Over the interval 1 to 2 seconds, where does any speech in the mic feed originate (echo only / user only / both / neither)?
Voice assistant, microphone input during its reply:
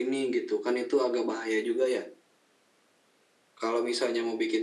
echo only